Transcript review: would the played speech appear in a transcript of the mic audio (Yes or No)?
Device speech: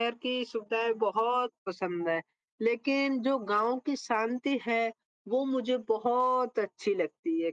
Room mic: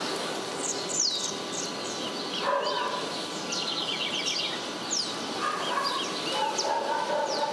No